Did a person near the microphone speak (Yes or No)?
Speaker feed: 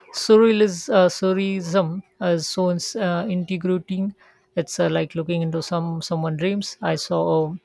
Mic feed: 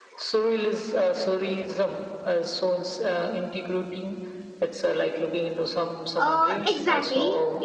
Yes